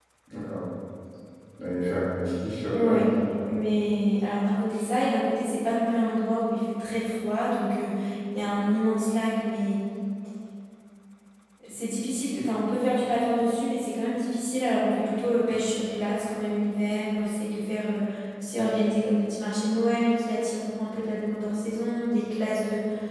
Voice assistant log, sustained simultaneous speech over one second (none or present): none